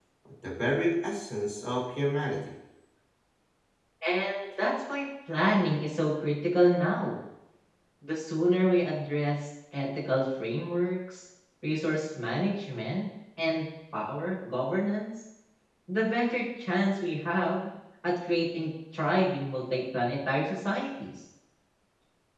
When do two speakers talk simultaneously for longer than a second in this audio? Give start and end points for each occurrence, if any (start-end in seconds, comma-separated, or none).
none